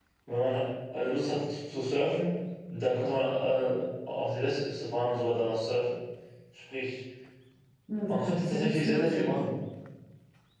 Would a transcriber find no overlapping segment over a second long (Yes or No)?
No